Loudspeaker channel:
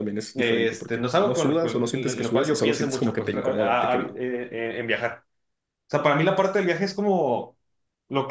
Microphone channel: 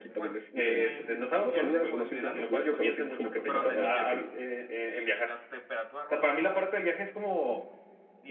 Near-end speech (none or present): present